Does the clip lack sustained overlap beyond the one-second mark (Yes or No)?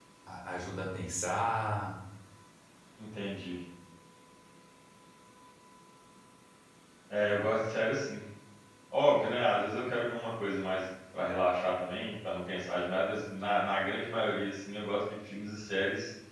Yes